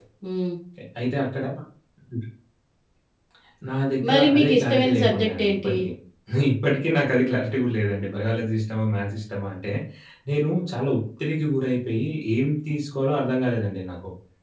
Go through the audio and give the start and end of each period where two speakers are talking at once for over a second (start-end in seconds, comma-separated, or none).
4.1-5.8